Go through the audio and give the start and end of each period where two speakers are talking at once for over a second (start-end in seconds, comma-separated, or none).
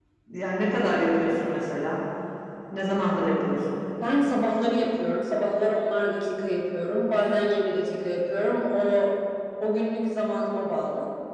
none